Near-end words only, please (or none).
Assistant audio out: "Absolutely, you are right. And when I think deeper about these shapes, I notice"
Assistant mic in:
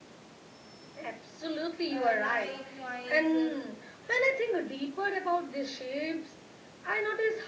Uh, light, noise, uh,